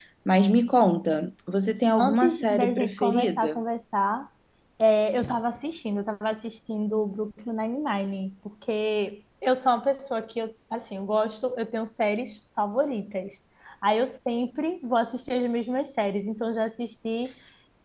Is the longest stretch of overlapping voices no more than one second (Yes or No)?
No